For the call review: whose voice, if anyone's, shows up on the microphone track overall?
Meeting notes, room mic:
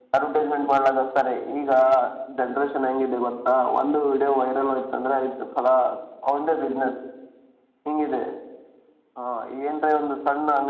echo only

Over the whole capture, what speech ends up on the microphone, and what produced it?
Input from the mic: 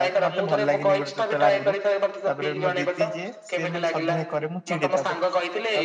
both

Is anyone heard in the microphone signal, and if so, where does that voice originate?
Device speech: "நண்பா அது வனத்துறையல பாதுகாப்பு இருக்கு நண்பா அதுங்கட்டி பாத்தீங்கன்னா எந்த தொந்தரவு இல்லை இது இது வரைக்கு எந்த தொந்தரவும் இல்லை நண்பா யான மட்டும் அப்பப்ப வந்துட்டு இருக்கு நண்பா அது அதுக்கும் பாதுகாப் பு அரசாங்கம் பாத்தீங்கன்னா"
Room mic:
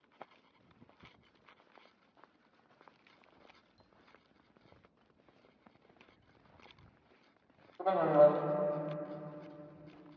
user only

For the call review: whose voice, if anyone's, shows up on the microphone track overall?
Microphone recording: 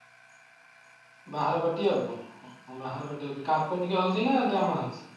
user only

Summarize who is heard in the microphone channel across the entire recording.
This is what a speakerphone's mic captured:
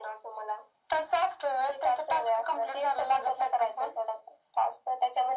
echo only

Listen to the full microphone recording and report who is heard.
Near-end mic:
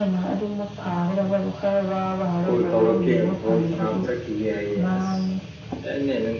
both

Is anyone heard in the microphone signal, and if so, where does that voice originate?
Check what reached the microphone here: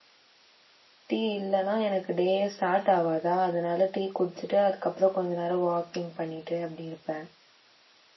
user only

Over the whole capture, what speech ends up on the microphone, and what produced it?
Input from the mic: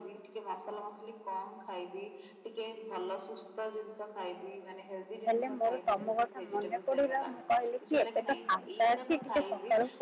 both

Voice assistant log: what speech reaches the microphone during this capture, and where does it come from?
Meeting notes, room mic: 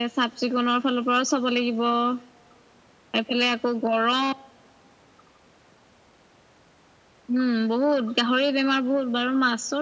echo only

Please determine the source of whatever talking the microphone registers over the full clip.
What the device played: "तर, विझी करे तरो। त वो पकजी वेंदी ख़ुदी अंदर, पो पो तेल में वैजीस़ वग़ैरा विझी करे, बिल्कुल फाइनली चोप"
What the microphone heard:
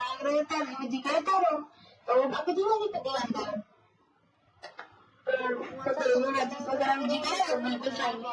both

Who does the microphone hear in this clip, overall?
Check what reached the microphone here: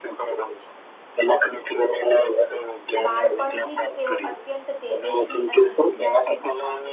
both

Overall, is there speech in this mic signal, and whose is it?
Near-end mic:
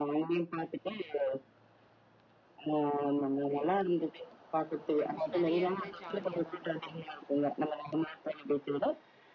both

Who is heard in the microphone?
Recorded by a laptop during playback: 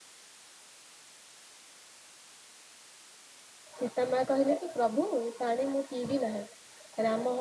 user only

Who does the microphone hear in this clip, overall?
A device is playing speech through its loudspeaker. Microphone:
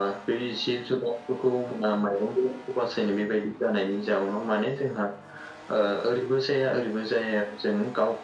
echo only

